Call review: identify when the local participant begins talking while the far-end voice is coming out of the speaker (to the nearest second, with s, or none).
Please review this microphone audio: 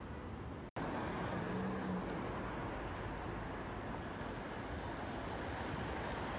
none